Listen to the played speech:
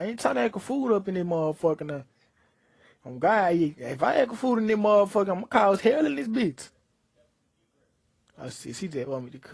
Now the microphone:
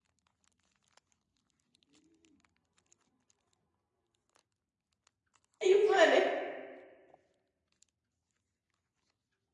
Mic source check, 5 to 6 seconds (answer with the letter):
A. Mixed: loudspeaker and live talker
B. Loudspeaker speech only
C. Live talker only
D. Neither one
C